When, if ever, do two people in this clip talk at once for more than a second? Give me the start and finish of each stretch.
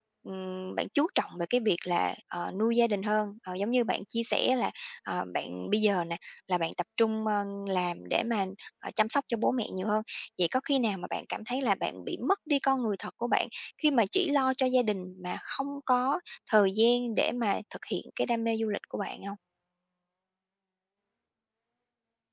none

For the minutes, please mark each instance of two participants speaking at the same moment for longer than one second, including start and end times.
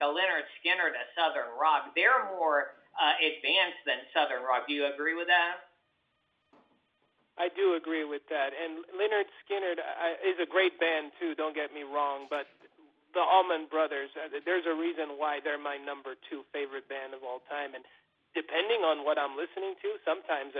none

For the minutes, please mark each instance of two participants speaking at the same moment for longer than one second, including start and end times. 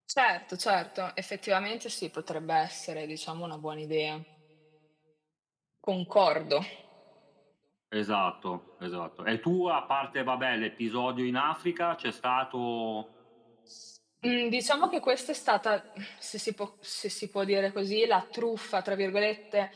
none

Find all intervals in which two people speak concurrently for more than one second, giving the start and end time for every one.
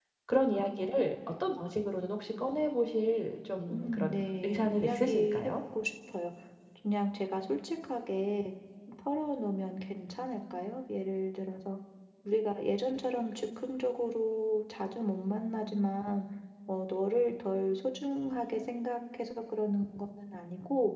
3.7-5.5

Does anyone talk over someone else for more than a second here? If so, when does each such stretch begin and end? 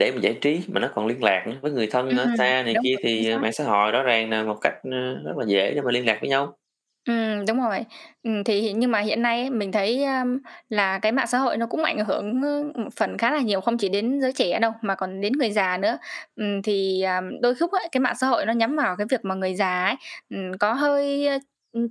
2.1-3.4

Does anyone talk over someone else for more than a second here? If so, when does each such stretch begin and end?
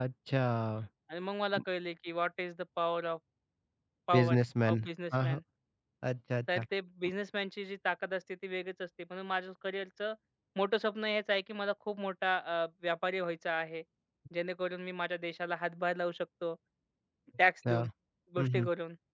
4.1-5.4

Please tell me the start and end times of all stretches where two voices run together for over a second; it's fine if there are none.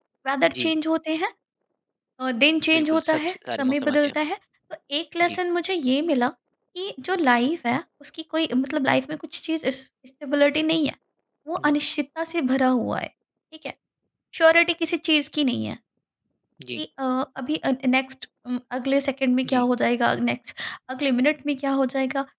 2.8-4.1

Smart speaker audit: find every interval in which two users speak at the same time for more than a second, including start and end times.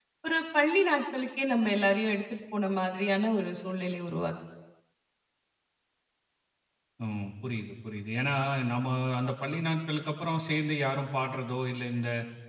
none

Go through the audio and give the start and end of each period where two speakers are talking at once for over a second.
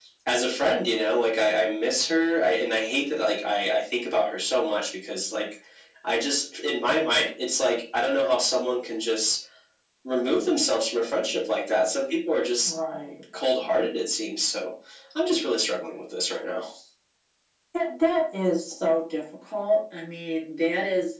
none

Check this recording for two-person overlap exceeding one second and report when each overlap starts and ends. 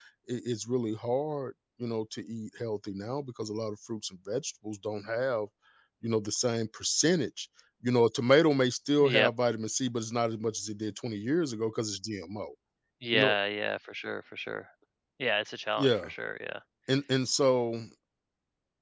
none

